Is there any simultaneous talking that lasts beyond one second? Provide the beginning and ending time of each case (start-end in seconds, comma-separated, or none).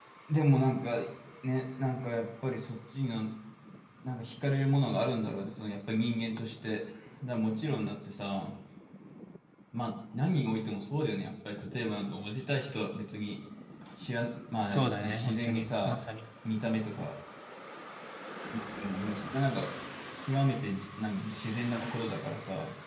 14.7-16.0